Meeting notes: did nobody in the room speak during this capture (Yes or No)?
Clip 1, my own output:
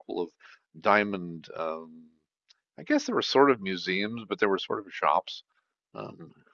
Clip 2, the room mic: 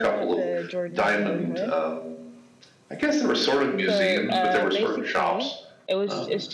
No